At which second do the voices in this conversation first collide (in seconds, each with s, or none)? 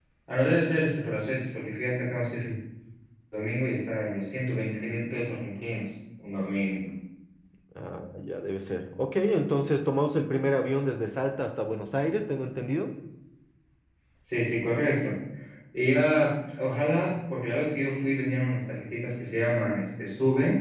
none